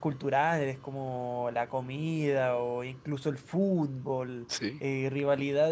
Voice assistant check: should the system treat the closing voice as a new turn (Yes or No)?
No